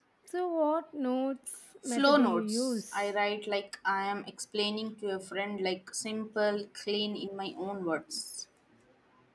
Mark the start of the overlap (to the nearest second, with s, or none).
2 s